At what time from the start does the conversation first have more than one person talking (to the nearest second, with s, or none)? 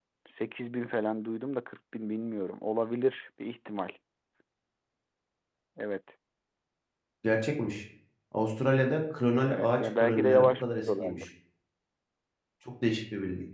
9 s